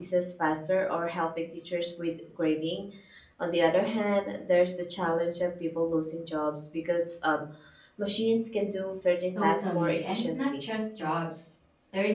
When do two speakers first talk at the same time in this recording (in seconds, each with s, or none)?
9.3 s